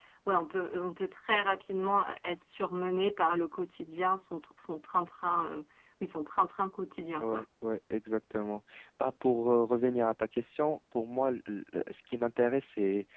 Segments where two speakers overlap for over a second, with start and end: none

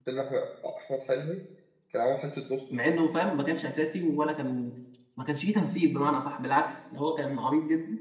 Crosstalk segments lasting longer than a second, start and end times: none

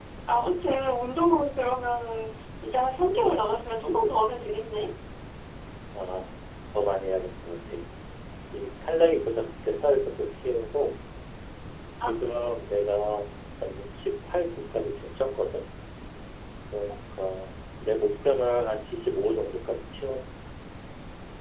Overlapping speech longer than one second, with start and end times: none

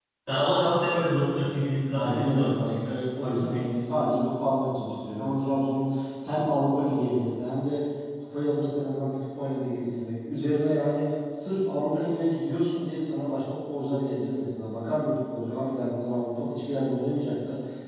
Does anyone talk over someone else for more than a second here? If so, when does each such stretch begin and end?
1.9-3.6

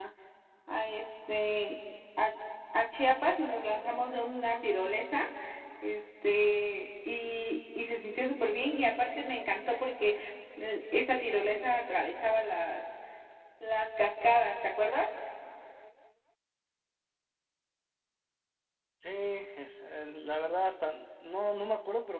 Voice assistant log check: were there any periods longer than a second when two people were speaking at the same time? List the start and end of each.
none

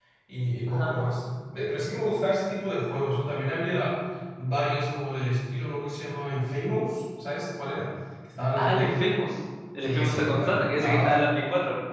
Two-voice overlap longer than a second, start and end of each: 9.8-11.1

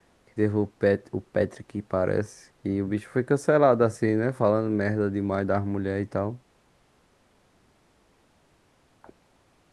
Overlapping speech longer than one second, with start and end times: none

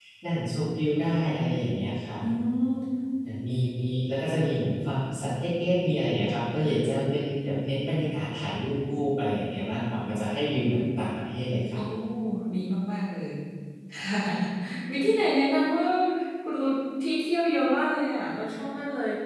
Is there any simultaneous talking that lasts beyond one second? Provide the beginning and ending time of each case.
none

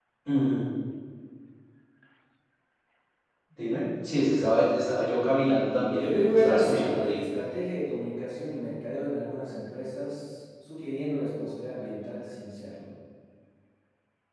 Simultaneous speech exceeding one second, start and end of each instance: 5.9-7.2

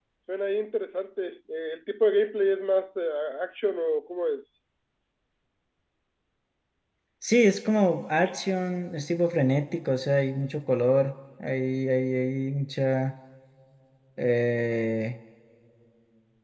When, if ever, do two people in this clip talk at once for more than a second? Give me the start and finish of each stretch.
none

